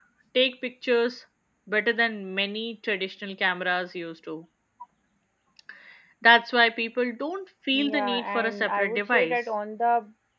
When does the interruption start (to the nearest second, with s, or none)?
8 s